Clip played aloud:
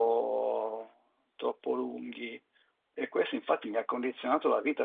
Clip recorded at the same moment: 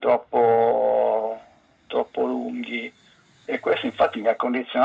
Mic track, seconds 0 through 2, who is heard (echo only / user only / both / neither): echo only